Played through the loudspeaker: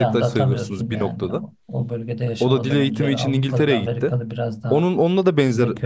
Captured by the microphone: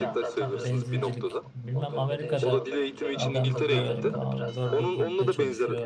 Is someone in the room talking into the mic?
Yes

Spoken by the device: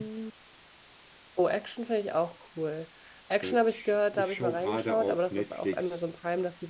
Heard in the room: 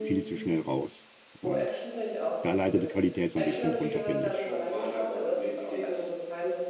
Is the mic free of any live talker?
No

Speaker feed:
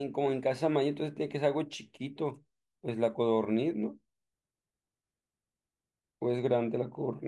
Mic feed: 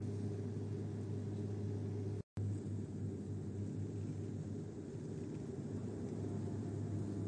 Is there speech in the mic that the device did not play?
No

